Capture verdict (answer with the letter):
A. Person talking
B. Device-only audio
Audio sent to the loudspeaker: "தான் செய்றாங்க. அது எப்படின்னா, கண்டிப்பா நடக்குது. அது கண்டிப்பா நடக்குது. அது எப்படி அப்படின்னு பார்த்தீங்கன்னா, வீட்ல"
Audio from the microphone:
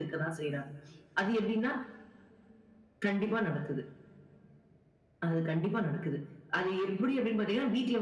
B